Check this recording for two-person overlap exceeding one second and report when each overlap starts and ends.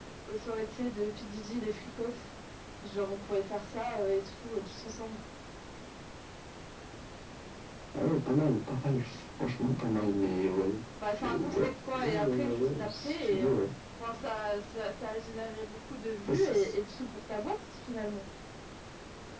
11.2-13.5

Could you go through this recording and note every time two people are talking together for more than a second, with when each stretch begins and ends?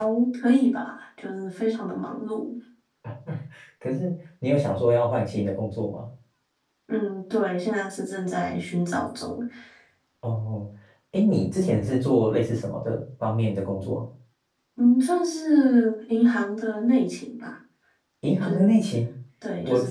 none

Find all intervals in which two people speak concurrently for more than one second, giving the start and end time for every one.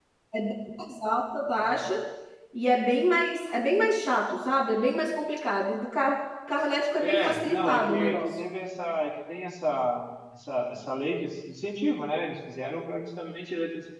7.0-8.3

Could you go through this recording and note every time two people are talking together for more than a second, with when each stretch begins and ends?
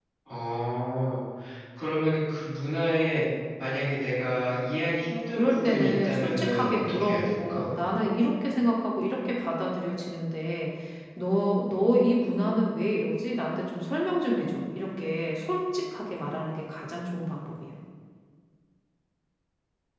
5.4-7.7

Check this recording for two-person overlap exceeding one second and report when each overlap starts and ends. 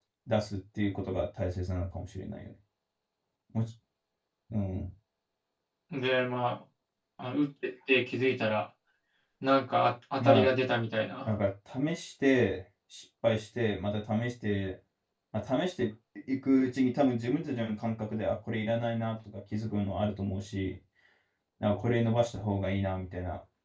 none

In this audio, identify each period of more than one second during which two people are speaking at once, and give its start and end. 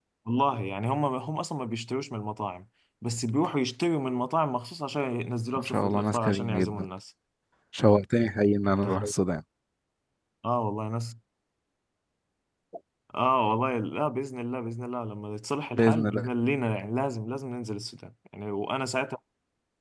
5.5-6.9

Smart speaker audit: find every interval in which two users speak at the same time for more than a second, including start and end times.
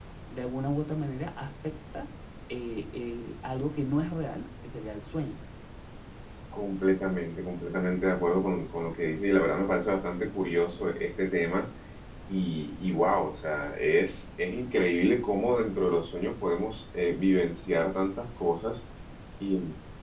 none

